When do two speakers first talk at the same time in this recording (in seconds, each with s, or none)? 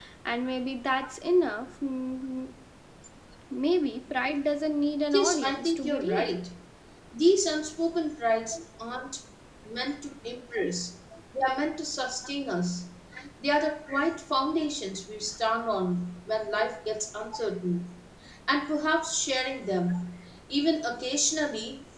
5.1 s